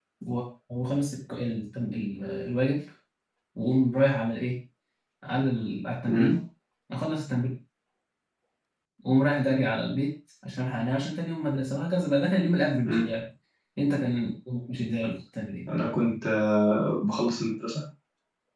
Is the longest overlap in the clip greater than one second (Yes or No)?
No